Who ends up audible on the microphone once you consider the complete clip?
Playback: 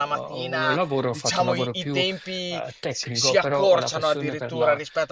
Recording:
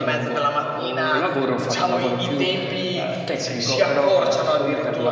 echo only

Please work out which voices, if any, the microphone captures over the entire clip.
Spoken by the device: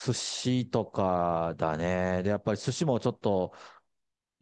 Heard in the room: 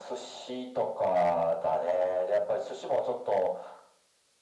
echo only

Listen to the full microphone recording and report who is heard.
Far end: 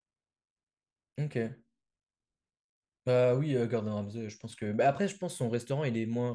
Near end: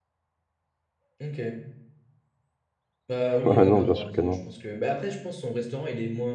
both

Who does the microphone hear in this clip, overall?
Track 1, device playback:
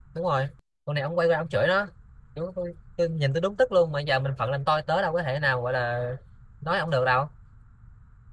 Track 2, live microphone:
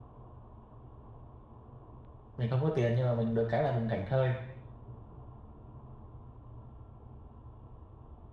user only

